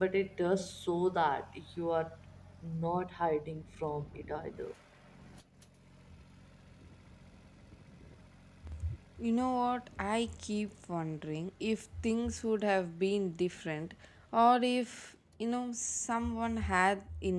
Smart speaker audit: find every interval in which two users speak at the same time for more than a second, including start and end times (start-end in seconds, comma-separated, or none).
none